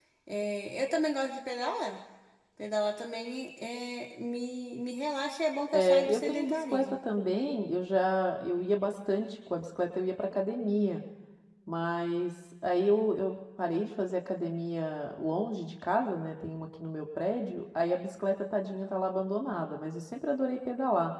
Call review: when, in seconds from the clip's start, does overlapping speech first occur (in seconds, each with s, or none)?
5.7 s